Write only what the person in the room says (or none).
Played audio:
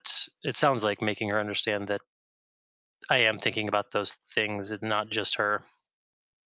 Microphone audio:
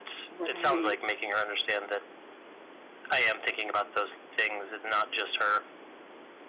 Right.